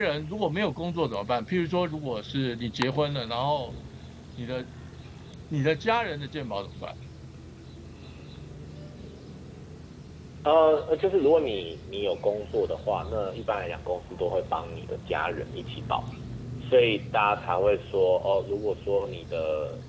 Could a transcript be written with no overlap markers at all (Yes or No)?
Yes